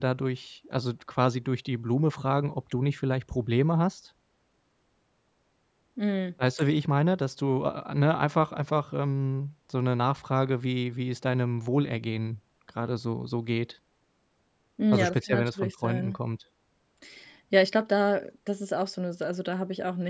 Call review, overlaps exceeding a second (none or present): present